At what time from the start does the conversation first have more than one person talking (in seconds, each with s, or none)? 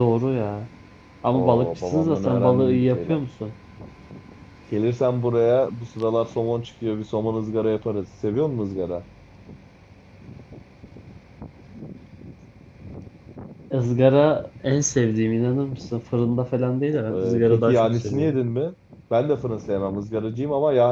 1.3 s